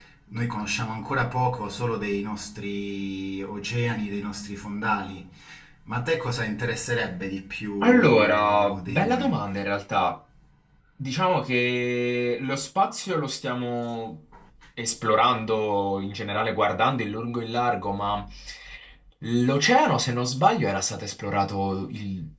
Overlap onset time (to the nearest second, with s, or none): 8 s